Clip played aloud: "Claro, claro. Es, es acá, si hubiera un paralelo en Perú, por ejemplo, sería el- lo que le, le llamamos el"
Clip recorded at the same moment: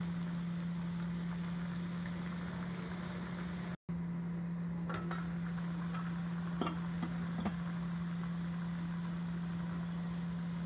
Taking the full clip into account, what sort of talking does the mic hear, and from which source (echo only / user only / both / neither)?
neither